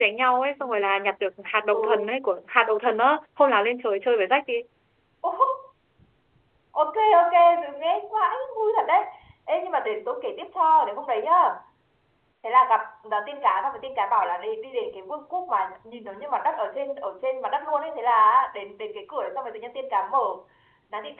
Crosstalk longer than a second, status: none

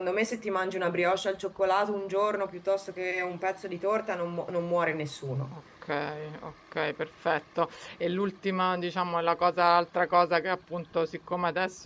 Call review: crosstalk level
none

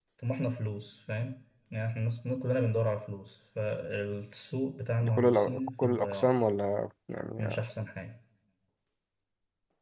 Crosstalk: present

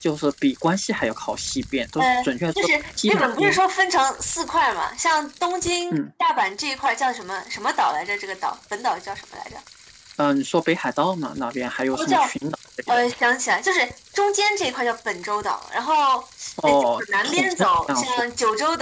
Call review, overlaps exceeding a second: present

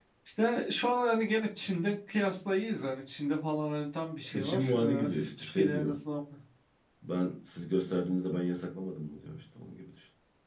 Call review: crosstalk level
present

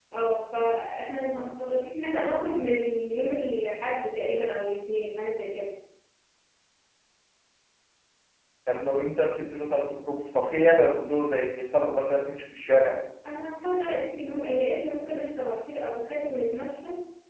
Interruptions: none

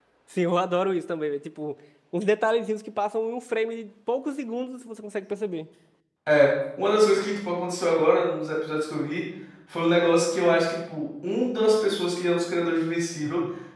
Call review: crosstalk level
none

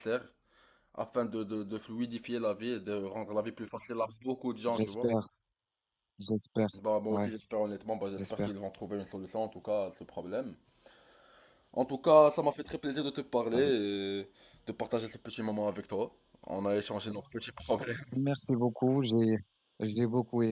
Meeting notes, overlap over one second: none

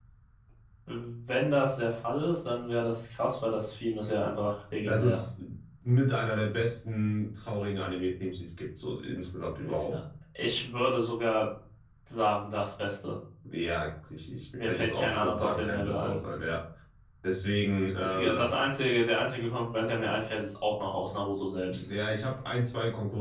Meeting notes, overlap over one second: present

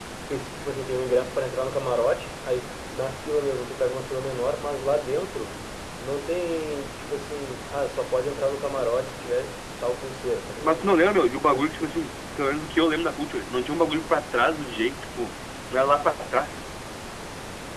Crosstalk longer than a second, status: none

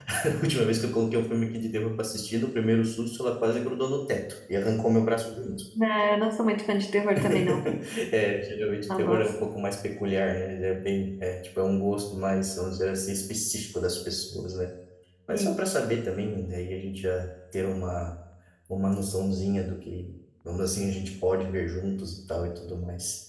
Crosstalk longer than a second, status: none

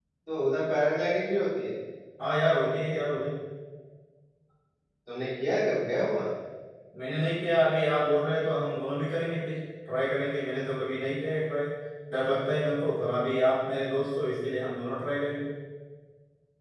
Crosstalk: none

